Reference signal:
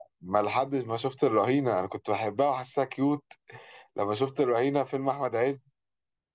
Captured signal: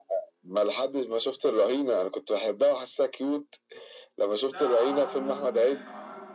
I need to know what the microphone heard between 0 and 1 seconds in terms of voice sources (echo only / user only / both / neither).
echo only